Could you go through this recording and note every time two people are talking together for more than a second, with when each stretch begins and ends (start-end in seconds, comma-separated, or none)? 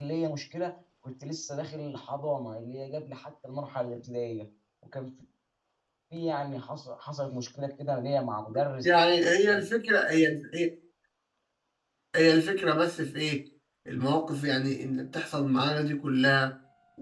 none